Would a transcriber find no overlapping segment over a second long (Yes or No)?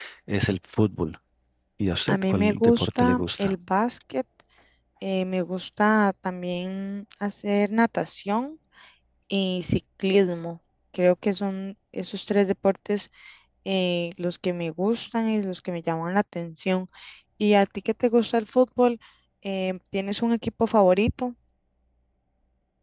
No